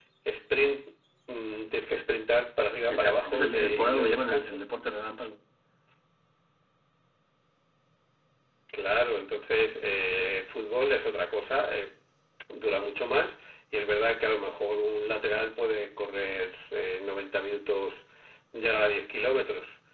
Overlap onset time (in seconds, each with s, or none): 2.9 s